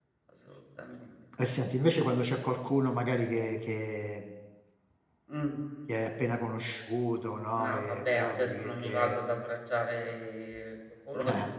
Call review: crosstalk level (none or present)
present